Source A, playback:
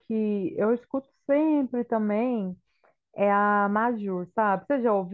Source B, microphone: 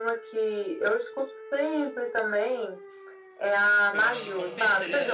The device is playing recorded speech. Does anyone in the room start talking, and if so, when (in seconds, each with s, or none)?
3.9 s